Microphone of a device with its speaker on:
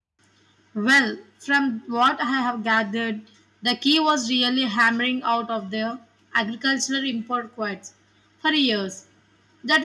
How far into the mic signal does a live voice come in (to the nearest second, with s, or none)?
none